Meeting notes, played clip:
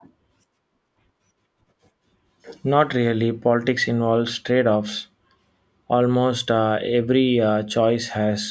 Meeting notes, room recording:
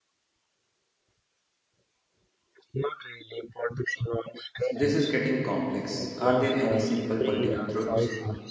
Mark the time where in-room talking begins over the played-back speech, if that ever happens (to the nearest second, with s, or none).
5 s